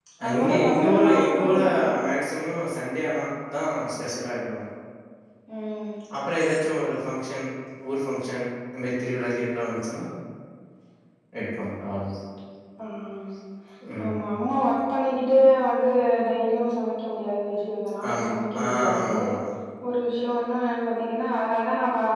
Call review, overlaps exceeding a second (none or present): present